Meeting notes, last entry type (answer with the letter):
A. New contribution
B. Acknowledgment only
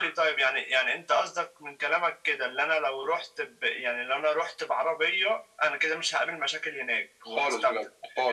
A